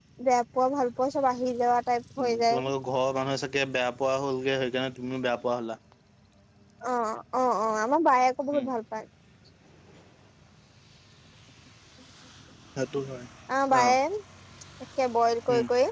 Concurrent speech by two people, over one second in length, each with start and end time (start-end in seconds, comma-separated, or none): none